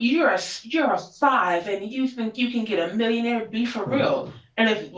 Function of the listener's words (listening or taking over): listening